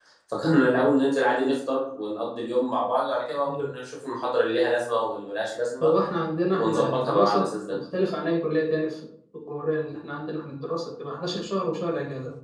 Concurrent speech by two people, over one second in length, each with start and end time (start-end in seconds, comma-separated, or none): 6.5-7.8